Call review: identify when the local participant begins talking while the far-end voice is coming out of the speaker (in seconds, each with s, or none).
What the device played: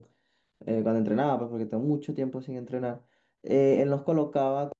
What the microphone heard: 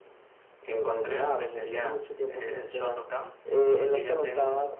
0.6 s